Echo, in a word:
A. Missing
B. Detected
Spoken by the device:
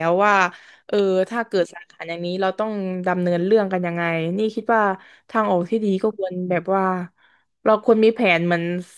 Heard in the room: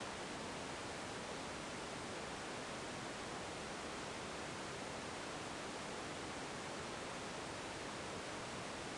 A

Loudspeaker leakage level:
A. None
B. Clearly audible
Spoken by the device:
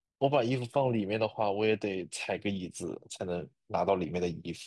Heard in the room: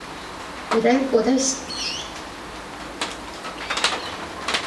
A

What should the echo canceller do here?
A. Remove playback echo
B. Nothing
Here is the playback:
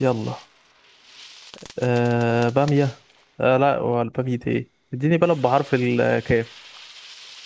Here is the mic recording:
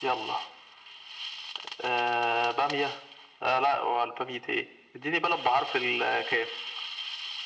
A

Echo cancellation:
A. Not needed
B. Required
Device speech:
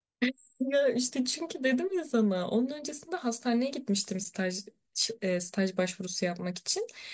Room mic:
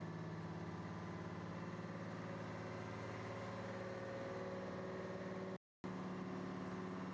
A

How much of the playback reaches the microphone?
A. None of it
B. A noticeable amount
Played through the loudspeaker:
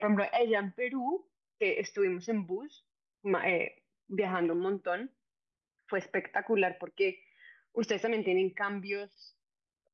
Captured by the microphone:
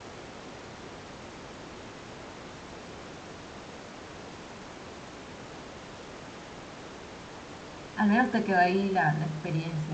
A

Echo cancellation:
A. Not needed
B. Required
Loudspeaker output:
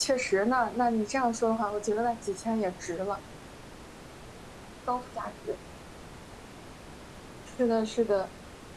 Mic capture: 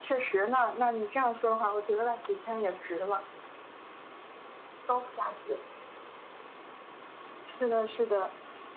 B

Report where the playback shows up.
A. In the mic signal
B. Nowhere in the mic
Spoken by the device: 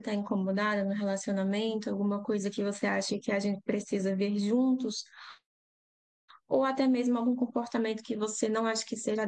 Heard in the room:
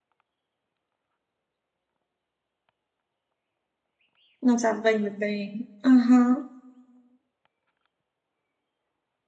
B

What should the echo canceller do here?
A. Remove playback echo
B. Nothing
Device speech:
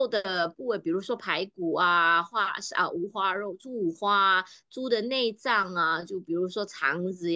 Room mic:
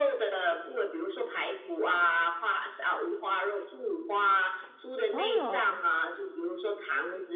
A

